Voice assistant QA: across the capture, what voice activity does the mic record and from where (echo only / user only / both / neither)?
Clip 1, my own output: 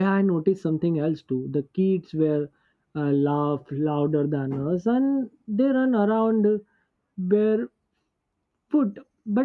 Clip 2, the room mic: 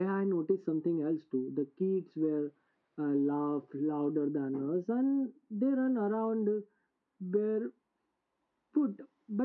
echo only